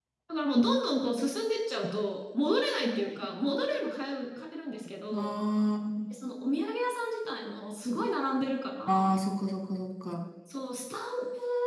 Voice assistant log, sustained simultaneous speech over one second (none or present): none